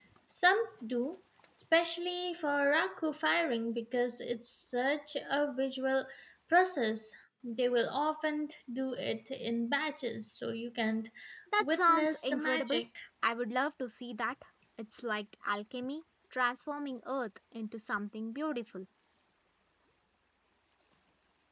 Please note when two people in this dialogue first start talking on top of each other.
11.6 s

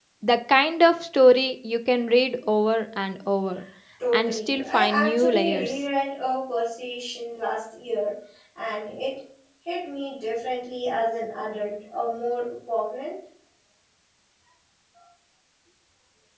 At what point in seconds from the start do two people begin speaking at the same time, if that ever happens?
4.1 s

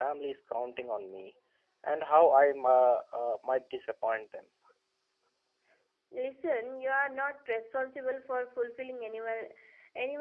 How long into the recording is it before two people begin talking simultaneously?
none

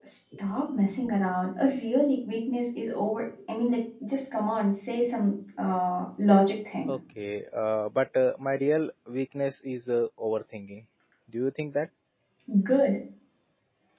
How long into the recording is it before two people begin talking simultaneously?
none

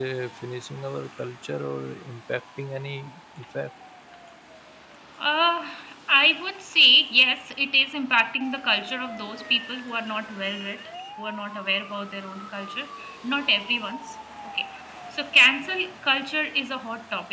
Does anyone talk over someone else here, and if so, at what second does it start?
none

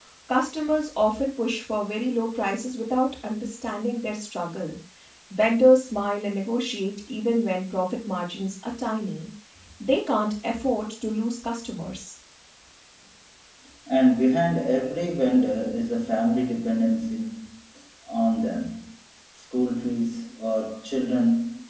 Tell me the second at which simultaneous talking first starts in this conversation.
none

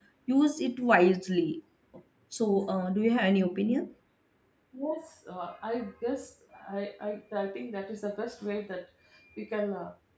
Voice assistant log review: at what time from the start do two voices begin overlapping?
none

